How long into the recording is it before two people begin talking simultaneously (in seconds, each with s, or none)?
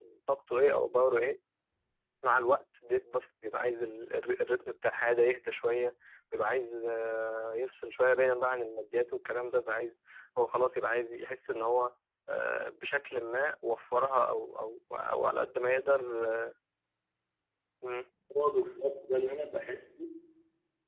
none